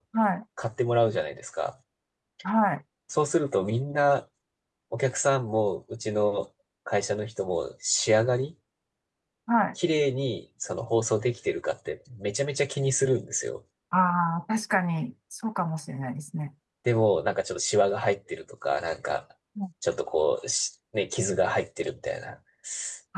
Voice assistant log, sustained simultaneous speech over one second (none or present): none